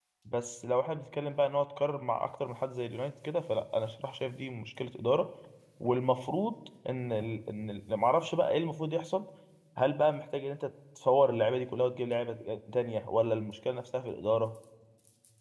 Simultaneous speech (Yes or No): No